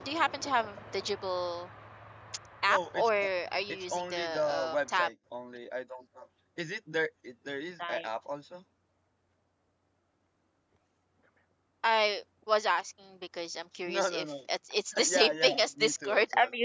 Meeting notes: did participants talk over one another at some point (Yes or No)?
Yes